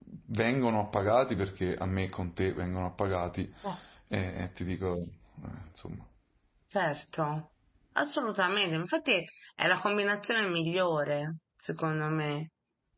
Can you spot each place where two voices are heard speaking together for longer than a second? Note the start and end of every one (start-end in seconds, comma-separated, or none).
none